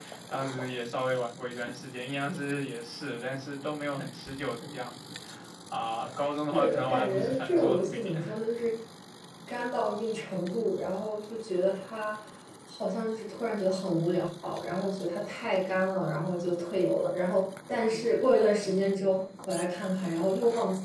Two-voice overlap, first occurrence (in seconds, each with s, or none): 6.5 s